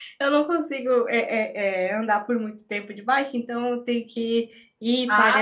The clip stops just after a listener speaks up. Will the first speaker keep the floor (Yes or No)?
No